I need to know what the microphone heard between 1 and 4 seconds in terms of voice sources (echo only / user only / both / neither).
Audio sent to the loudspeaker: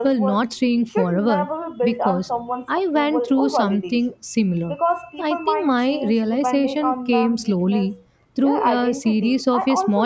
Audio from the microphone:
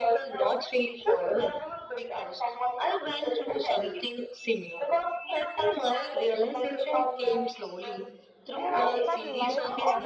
echo only